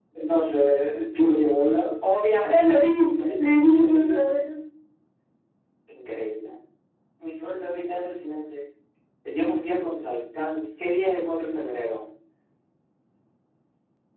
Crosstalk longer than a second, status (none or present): present